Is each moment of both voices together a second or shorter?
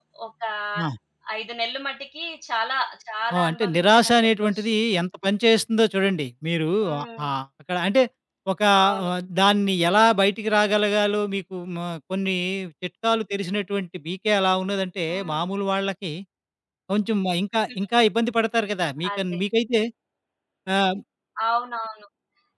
No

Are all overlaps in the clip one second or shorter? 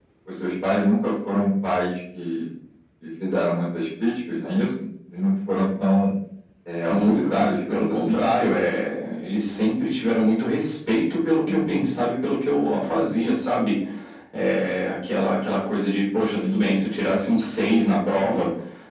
No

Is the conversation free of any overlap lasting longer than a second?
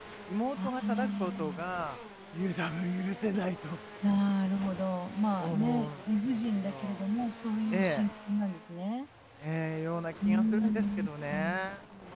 No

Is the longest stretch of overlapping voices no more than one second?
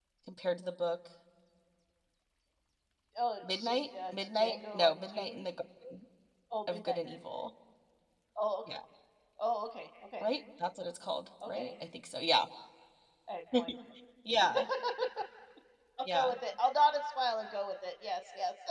No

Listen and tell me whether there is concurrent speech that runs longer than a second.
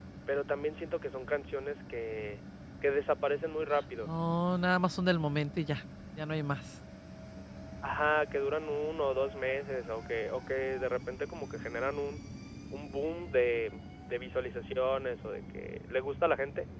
No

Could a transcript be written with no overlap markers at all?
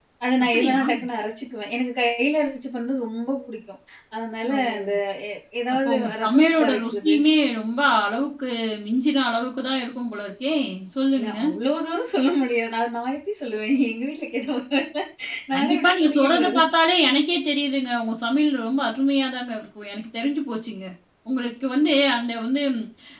No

